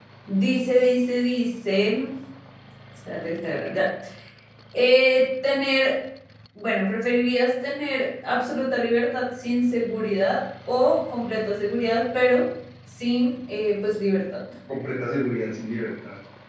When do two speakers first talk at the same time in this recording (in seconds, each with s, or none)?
none